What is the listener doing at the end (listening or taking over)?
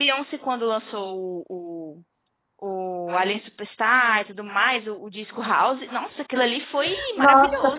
taking over